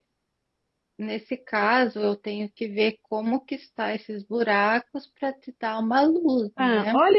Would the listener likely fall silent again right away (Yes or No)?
No